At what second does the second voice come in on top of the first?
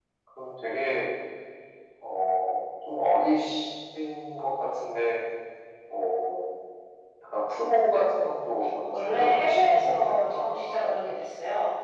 9 s

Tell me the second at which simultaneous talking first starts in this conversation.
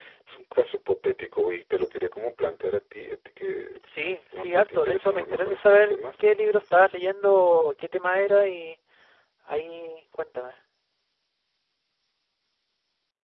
4 s

